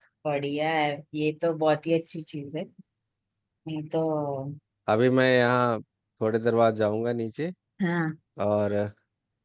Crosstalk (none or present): none